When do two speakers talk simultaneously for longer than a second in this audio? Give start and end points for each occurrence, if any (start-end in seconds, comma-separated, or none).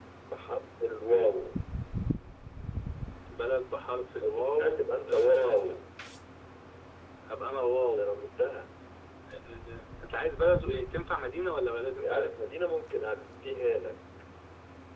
4.2-5.7